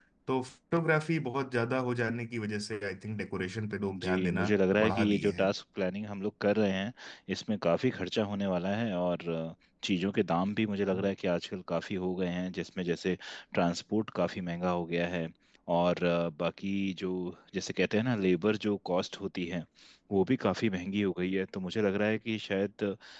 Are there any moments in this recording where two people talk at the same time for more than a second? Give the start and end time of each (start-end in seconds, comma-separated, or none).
4.0-5.5